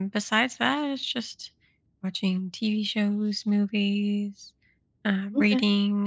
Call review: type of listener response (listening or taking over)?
listening